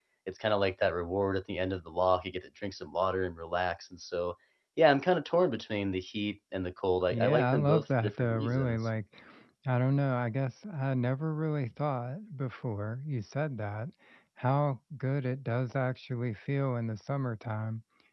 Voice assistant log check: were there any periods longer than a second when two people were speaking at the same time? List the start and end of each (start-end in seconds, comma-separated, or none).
7.1-8.9